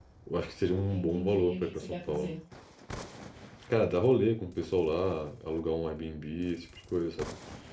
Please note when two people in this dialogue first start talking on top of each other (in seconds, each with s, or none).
0.9 s